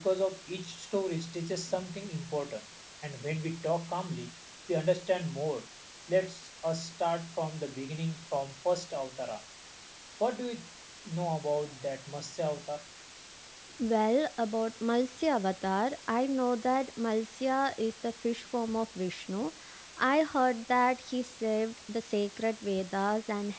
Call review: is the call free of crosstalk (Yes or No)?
Yes